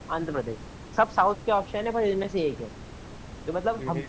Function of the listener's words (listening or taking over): listening